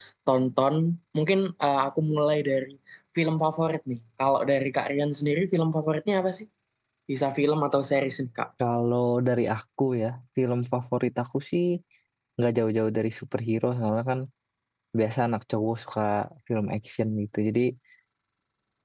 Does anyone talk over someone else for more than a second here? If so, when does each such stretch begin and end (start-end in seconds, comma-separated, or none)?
none